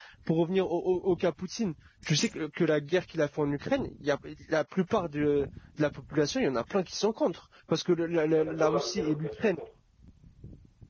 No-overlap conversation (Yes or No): No